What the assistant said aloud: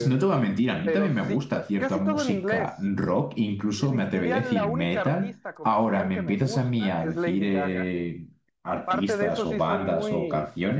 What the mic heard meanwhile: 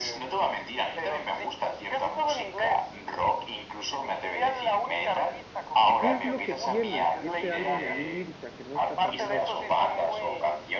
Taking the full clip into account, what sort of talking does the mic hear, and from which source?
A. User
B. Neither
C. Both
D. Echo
C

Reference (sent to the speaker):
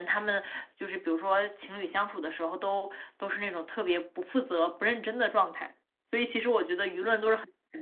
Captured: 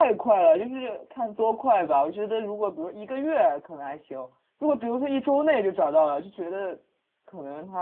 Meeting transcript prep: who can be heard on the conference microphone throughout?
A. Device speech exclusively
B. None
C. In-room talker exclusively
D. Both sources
C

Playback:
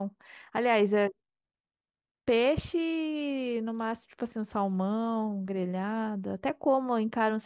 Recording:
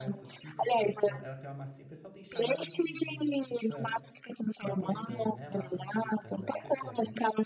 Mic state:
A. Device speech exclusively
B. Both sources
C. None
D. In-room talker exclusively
B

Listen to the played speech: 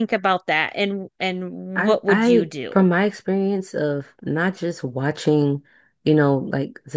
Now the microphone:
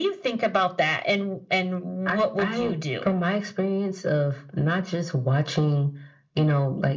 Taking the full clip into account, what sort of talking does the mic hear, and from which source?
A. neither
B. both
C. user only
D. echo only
D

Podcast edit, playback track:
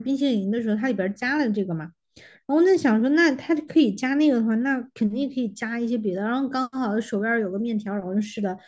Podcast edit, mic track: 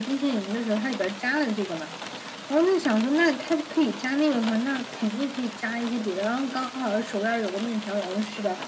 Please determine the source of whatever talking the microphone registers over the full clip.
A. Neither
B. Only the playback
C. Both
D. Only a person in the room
B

